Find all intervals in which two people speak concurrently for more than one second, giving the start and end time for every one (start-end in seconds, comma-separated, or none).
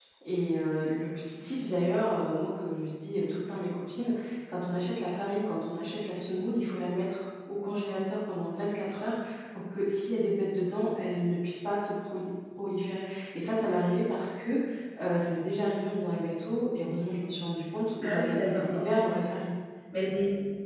18.0-19.4